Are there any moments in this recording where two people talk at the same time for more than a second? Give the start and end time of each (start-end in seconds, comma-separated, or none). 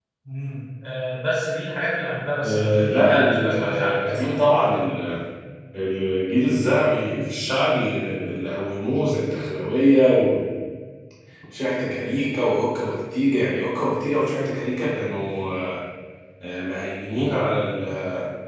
2.4-4.8